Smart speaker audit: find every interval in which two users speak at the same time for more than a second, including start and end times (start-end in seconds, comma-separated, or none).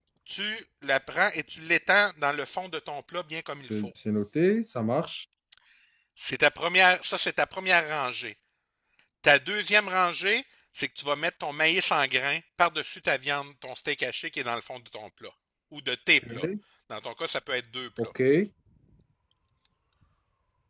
none